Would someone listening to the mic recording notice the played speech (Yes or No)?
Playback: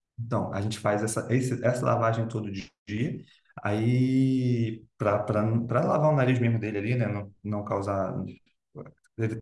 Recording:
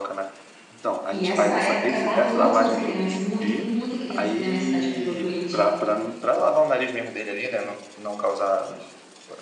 Yes